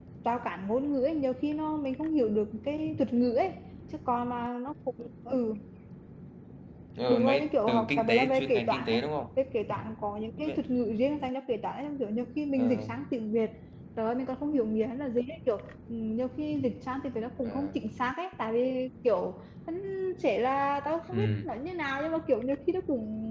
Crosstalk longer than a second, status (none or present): present